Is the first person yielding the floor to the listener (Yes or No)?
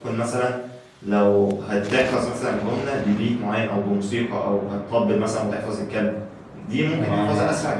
No